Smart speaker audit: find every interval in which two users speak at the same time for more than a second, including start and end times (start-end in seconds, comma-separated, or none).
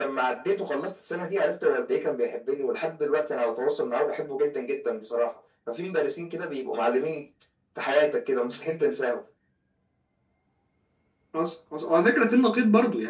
none